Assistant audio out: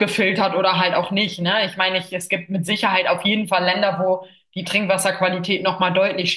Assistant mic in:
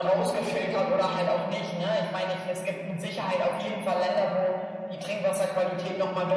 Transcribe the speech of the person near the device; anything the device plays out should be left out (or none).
none